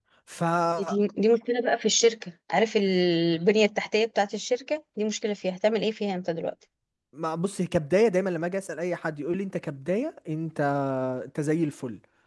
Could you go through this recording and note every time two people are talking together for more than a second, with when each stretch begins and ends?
none

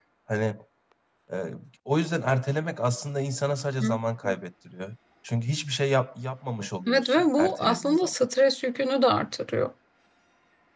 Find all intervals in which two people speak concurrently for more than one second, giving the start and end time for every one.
6.9-8.1

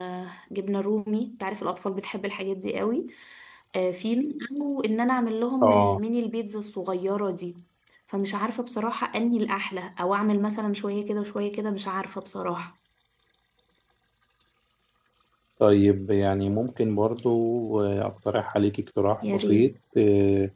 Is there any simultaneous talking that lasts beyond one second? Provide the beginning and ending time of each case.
none

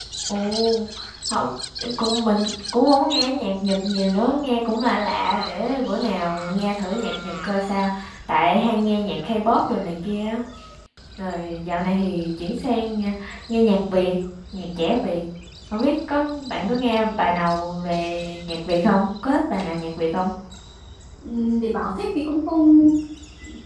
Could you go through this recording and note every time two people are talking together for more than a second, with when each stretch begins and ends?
none

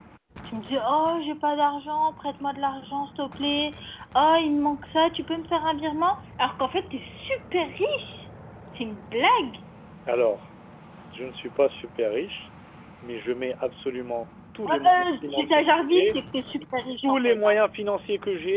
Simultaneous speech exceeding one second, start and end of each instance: 14.7-16.2

